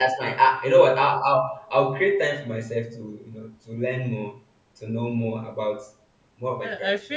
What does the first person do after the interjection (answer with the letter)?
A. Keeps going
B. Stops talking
B